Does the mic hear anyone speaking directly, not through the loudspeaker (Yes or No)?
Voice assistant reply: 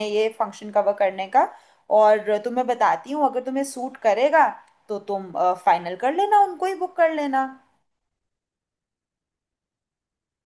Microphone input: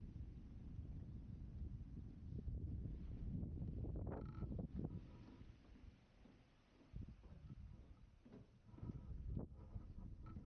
No